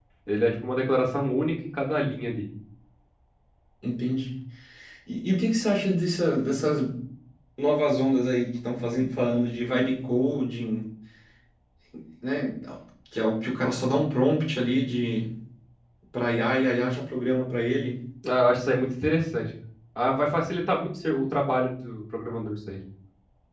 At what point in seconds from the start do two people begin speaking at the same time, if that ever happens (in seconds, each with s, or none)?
none